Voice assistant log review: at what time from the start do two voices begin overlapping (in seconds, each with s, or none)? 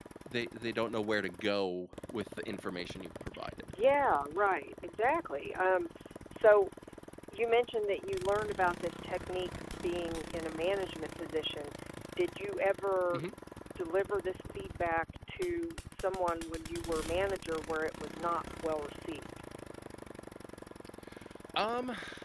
none